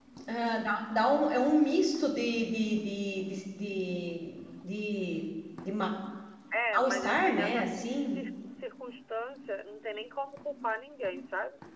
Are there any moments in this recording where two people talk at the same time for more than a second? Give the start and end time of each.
6.7-8.2

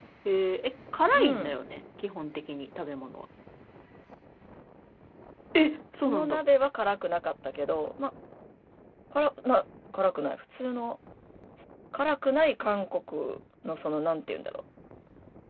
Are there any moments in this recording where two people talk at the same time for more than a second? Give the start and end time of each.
none

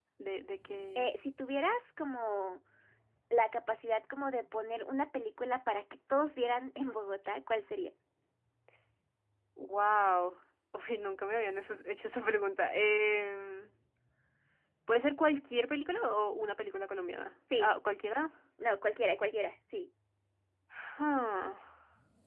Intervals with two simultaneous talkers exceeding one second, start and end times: none

